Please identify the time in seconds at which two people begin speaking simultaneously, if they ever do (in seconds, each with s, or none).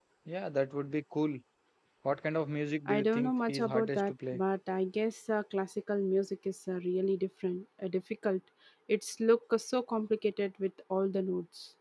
2.9 s